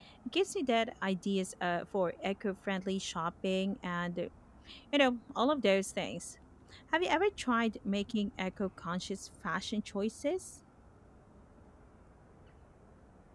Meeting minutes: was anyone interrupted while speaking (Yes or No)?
No